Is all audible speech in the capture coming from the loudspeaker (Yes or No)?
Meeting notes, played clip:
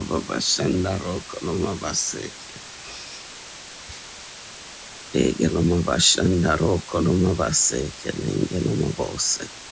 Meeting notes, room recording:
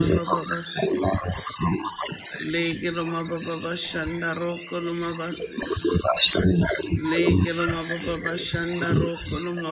No